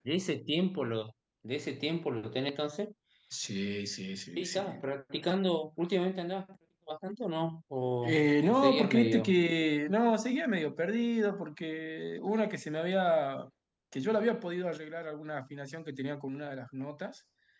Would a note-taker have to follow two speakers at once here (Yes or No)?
Yes